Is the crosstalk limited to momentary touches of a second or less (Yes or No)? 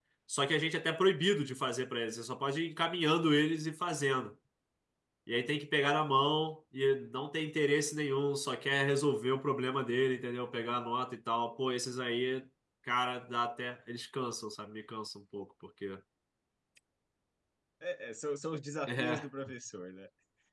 Yes